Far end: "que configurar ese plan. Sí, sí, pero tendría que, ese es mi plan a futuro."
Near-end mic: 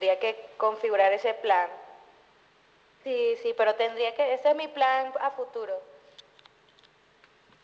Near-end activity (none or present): none